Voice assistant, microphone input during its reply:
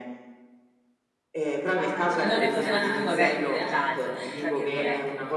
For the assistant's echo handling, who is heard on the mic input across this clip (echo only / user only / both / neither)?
both